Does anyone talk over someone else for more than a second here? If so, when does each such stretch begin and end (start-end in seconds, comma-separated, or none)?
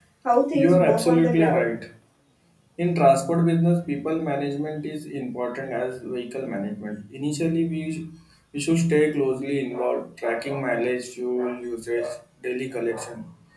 0.5-1.8